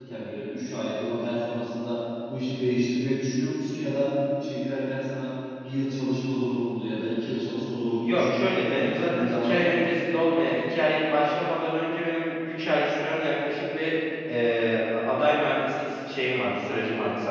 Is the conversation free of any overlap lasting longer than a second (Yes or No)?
No